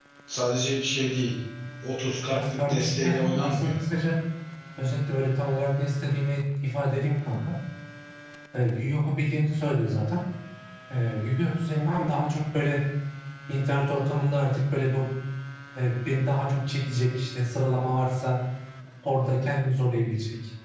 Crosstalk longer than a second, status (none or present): present